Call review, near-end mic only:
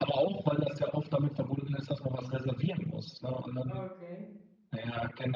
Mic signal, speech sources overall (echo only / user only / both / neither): both